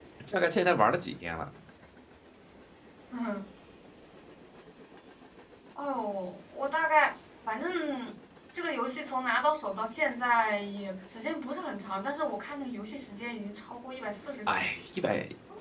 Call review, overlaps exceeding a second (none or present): none